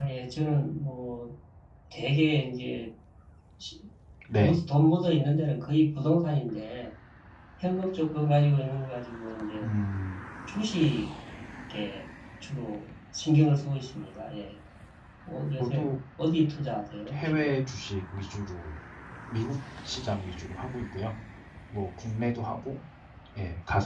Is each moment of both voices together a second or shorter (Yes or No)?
Yes